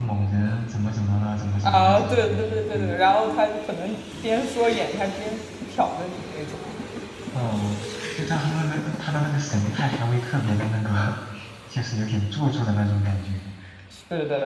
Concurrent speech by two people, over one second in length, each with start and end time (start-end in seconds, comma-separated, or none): 1.6-2.9